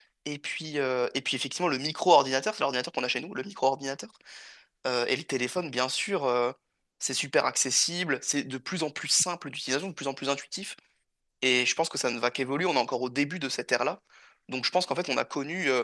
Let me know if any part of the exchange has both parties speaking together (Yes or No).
No